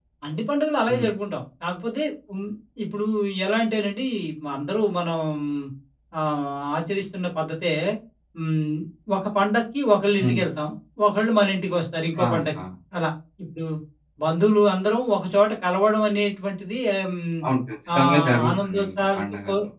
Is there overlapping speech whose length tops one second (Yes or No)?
Yes